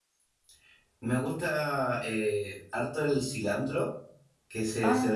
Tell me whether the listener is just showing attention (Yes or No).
Yes